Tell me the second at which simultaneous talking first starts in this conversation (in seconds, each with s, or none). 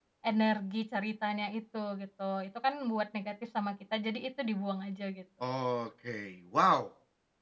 none